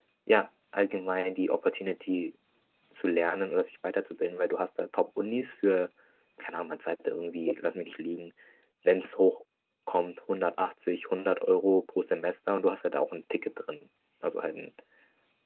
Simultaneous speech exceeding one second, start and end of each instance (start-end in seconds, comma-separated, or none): none